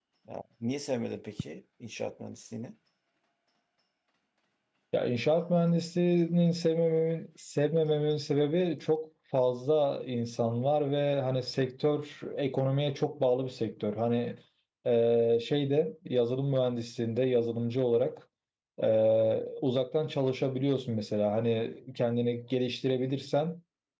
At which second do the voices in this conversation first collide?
none

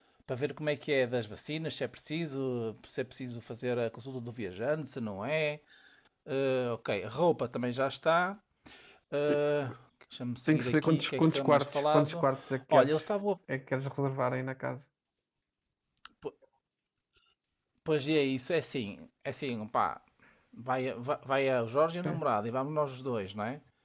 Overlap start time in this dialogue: 10 s

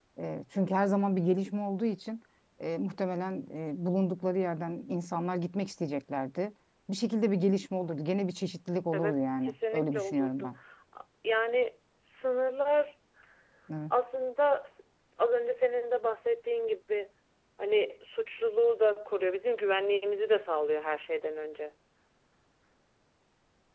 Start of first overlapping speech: 9 s

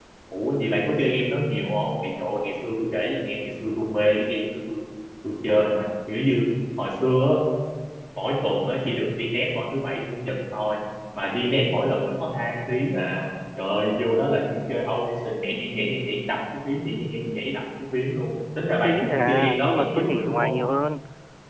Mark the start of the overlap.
19 s

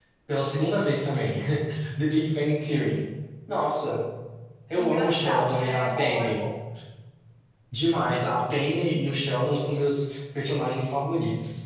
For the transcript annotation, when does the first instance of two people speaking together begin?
5 s

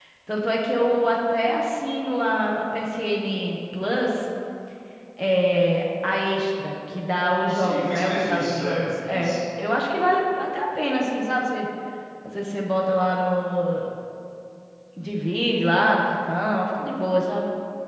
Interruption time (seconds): 7 s

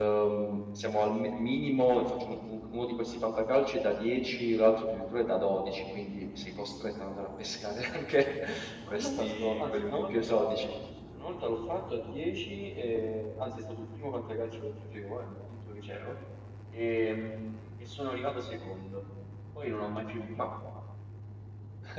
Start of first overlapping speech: 9 s

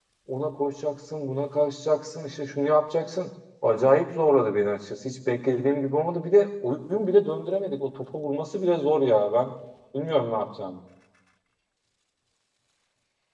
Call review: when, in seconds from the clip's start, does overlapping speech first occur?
none

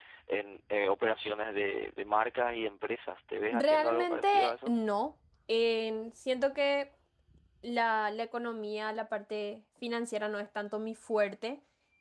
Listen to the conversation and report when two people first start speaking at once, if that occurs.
4 s

